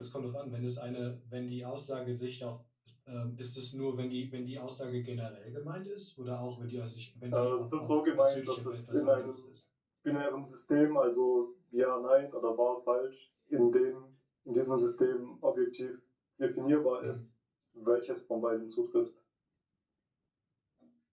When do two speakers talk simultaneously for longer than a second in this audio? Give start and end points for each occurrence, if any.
7.3-9.4

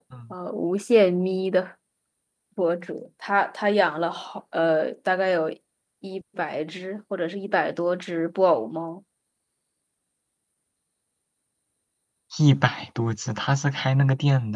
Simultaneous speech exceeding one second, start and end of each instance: none

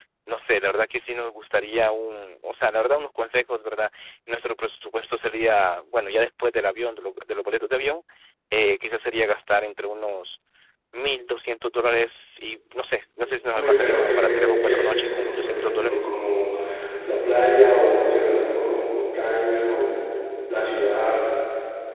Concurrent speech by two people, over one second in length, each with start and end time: 13.6-16.1

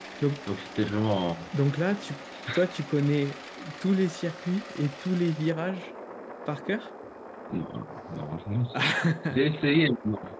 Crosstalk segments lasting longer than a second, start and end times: none

